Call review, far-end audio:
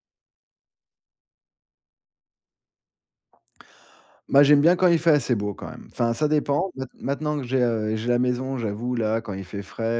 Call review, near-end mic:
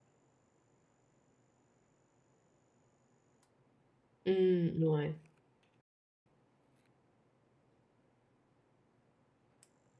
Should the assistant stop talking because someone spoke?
Yes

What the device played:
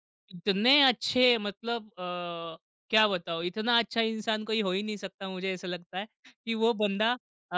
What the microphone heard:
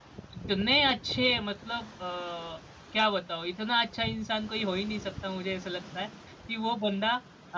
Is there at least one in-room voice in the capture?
No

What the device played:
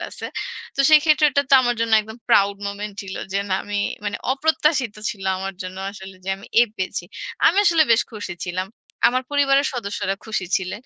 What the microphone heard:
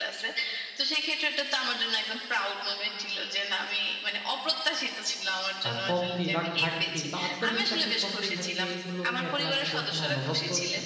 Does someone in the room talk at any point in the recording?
Yes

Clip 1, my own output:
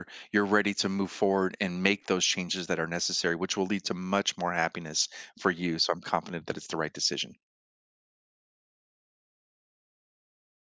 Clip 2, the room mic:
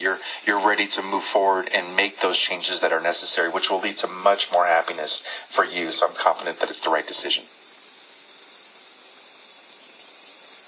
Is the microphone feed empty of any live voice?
Yes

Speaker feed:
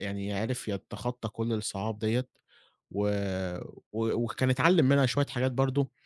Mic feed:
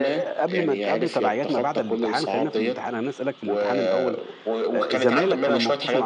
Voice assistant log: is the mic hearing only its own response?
No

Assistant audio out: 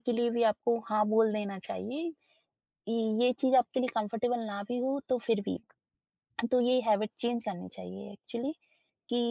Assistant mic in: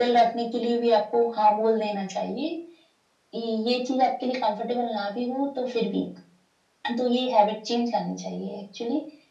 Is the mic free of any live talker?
Yes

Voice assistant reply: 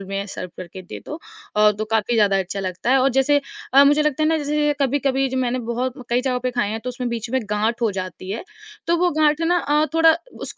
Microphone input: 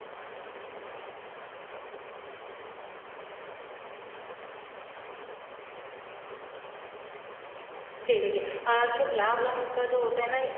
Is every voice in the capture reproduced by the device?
No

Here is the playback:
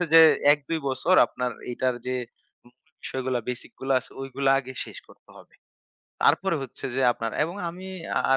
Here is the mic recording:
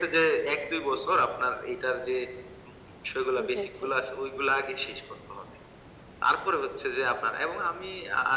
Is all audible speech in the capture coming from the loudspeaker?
No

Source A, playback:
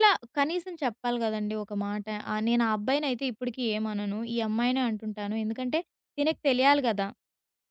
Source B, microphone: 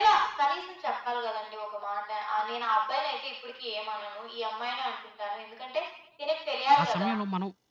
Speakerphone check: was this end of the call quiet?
No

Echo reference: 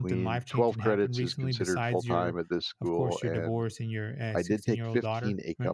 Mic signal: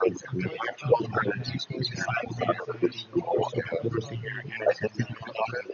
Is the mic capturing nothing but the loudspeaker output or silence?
No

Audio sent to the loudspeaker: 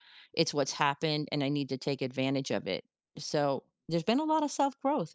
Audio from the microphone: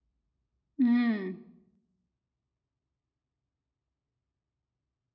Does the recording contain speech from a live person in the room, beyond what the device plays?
Yes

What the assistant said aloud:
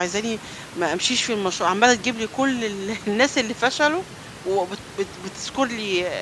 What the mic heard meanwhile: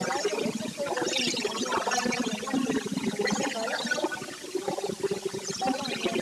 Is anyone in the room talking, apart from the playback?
Yes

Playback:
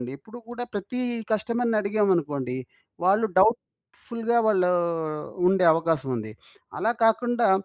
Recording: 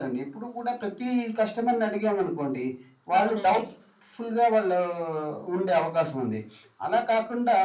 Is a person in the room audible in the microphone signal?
Yes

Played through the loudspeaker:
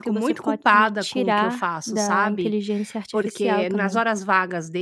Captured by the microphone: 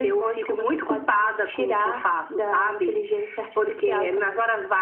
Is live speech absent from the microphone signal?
Yes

